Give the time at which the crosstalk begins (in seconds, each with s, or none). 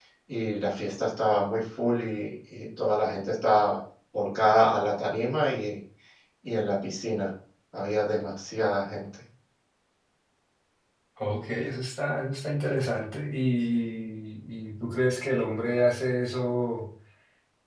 none